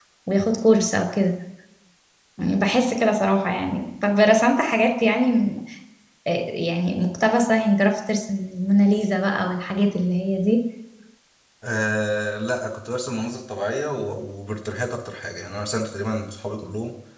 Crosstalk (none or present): none